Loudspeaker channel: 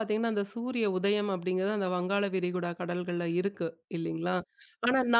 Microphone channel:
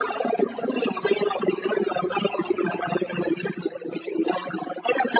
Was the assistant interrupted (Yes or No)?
No